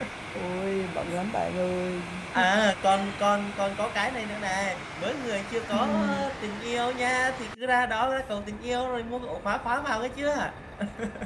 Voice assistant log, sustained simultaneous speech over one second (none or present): none